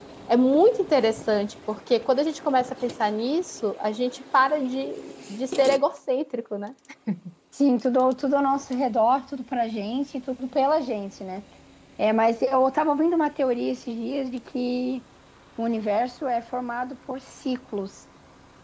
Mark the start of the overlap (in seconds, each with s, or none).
none